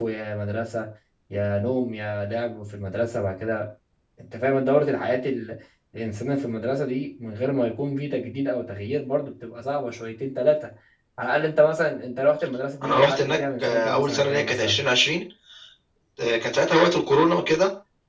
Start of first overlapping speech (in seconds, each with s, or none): 12.8 s